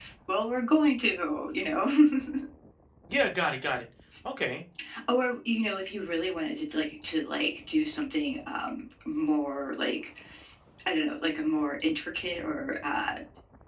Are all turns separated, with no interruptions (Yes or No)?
Yes